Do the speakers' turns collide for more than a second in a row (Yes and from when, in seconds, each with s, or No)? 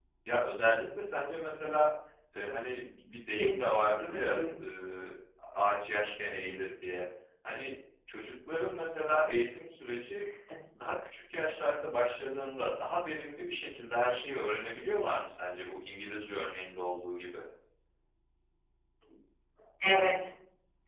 Yes, from 3.4 s